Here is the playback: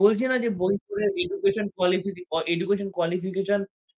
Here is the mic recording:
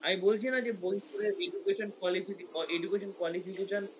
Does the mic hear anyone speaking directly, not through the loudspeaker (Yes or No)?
No